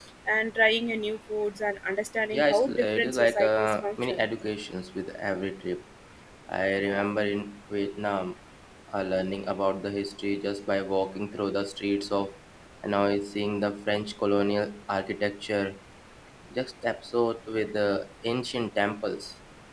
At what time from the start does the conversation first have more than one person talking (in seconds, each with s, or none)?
2.3 s